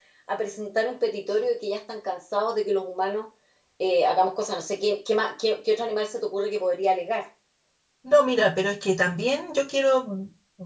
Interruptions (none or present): none